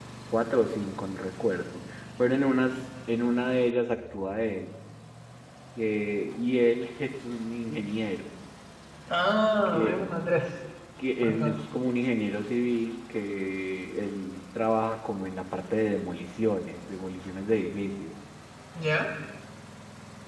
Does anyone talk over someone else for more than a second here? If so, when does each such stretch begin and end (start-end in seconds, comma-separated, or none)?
none